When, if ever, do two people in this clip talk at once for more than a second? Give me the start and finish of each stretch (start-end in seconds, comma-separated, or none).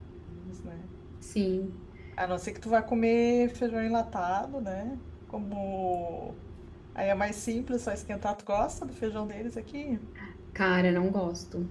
none